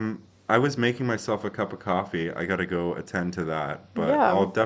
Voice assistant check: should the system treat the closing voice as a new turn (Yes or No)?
No